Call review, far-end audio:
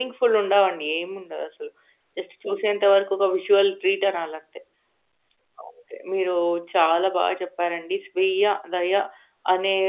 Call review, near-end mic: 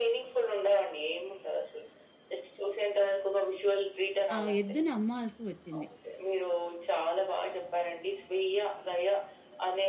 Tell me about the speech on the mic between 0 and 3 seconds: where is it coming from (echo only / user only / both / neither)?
echo only